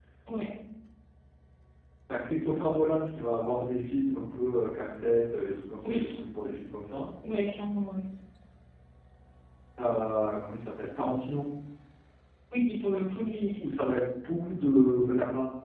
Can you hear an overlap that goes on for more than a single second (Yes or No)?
No